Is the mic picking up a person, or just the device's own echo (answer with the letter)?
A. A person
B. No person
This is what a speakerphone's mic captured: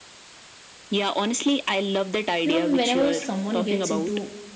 A